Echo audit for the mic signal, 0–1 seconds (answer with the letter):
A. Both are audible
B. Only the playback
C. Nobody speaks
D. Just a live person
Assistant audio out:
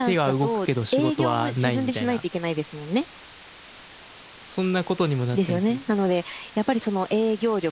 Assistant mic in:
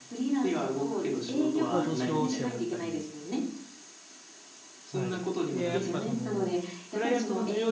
B